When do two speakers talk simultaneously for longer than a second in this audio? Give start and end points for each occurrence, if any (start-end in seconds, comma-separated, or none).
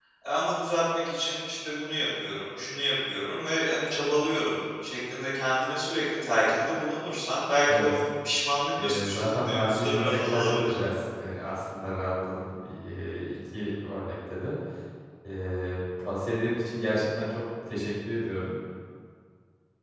8.8-10.7